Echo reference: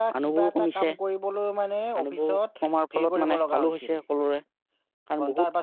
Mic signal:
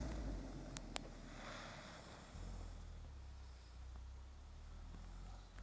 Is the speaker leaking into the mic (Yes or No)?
No